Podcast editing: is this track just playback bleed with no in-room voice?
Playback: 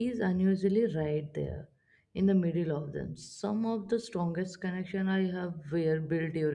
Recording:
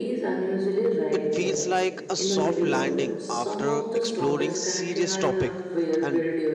No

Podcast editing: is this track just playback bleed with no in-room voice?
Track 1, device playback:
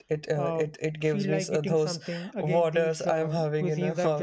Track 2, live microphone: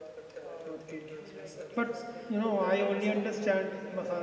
No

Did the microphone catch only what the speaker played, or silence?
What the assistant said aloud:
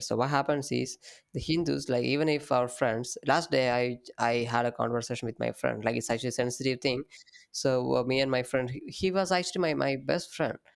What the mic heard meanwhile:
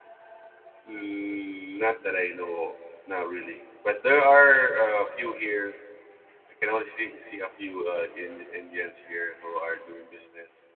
No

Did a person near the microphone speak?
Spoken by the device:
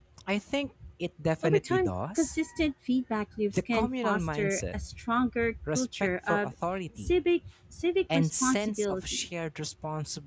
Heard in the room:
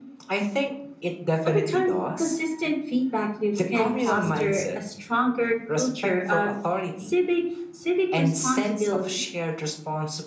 Yes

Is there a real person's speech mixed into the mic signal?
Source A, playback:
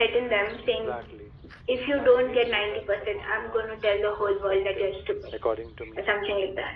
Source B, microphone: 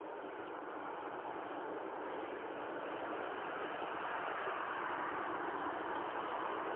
No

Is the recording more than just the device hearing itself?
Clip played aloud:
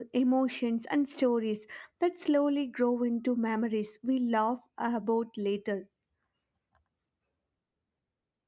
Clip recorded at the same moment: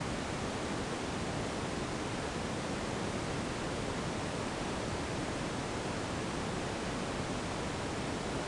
No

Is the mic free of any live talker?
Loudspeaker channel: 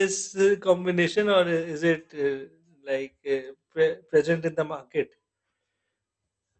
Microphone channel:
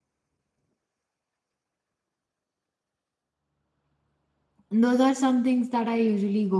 No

